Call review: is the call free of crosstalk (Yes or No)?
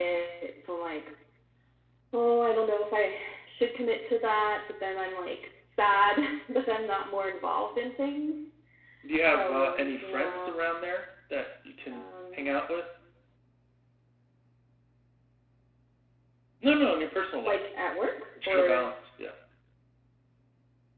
No